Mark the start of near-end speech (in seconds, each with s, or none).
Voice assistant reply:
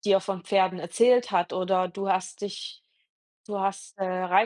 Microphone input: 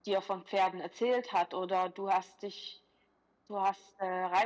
none